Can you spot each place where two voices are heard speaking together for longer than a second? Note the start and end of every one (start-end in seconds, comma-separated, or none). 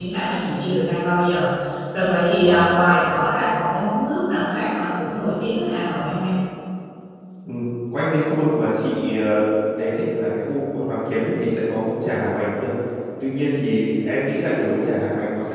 none